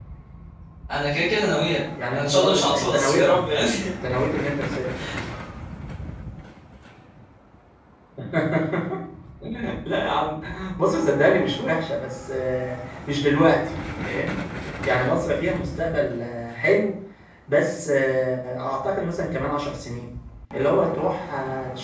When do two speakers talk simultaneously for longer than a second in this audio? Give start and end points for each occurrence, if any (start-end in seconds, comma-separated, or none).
2.1-3.5